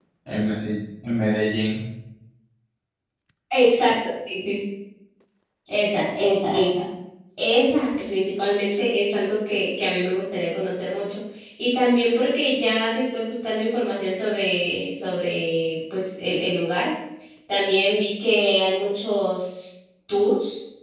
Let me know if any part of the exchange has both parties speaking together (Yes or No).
No